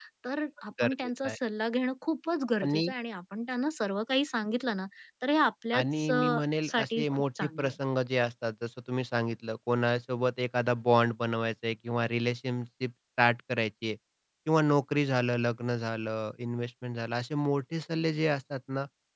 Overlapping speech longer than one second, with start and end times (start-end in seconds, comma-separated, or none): 5.8-7.7